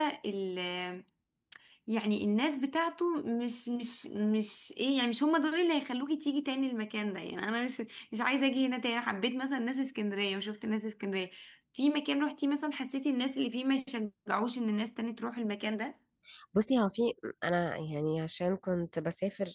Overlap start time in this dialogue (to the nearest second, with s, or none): none